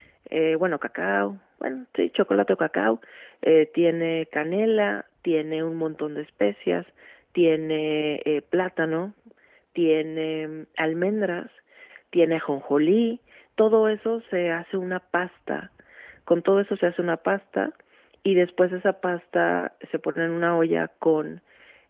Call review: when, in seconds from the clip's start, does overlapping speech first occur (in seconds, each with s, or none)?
none